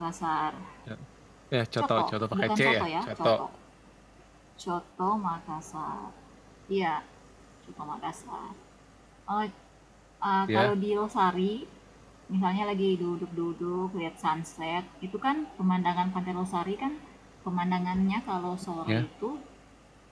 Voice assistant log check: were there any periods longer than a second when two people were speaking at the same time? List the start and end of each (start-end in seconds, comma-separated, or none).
1.8-3.3